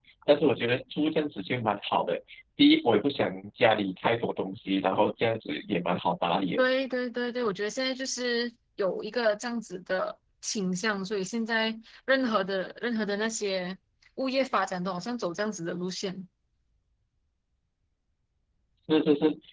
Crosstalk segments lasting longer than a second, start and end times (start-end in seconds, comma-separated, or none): none